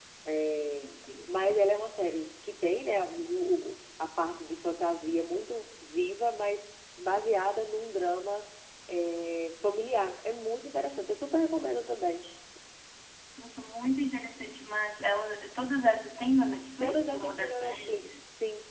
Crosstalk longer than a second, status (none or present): present